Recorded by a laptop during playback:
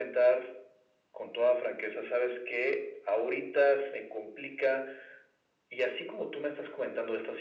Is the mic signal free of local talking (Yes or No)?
Yes